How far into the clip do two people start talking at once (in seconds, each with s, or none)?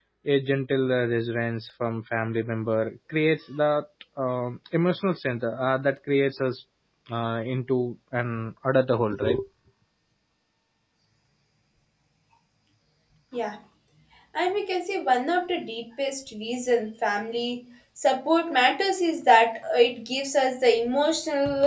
none